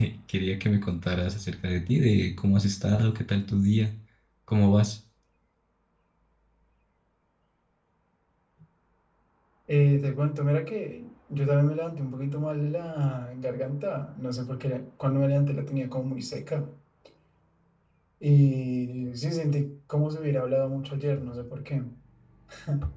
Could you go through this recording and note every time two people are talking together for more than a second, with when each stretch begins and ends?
none

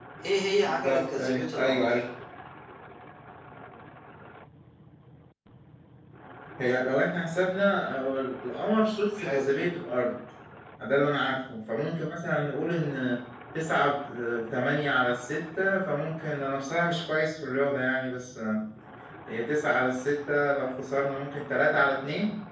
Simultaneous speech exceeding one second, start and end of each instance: 0.7-2.0

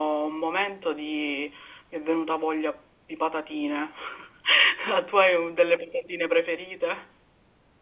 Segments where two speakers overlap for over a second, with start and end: none

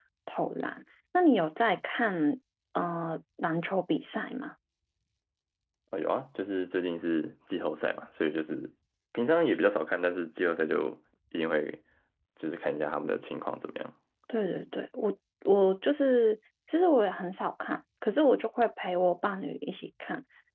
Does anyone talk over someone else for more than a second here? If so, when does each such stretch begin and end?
none

